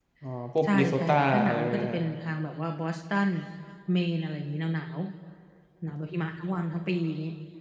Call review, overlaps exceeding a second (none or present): present